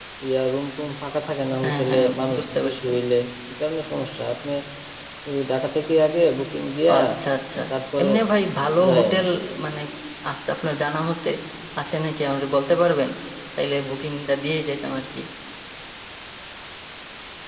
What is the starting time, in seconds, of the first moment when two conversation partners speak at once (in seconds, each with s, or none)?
1.6 s